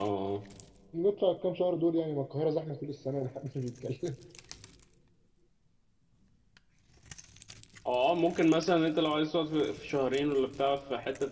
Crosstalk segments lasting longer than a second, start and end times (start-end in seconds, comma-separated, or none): none